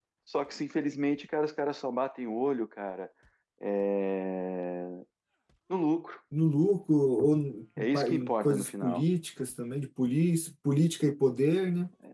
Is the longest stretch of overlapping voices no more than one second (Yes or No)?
No